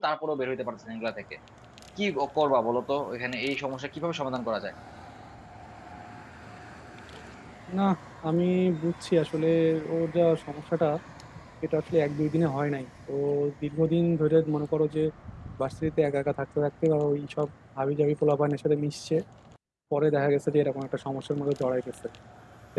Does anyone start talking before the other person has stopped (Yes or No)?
No